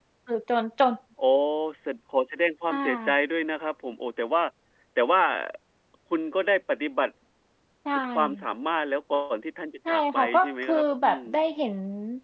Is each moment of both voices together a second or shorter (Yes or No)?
No